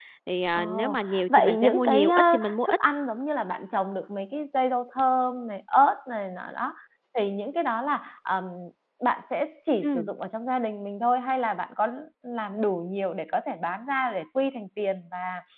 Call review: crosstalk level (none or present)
present